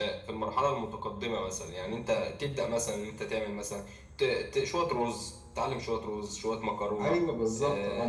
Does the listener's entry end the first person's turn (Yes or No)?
Yes